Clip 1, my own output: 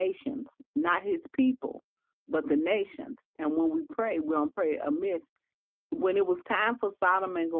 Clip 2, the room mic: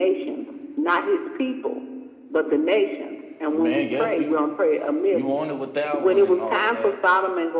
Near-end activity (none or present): present